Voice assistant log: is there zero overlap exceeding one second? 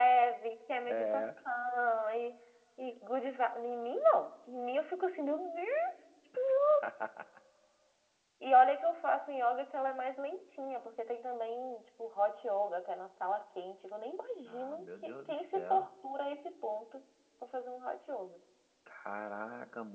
No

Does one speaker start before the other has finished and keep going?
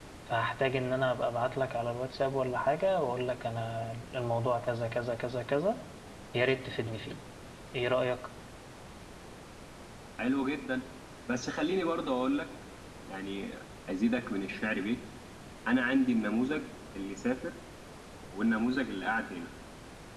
No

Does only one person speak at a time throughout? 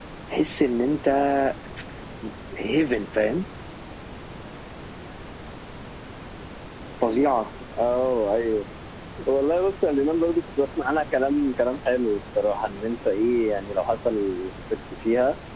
Yes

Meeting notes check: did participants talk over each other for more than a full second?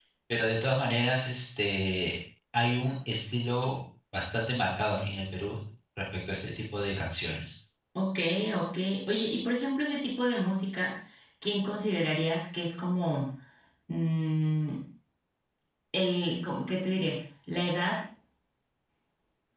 No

